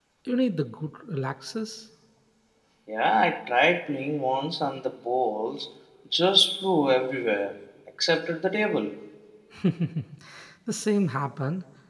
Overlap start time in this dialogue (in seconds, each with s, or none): none